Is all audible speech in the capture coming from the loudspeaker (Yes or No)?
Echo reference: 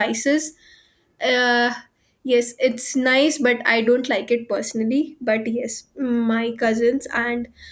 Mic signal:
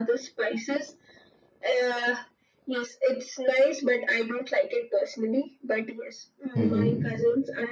No